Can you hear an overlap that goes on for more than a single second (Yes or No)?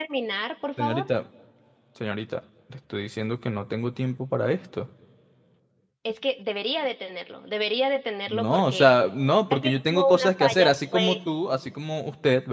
Yes